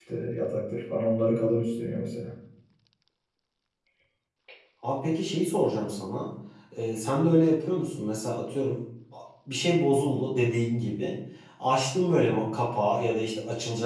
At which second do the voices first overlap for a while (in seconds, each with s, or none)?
none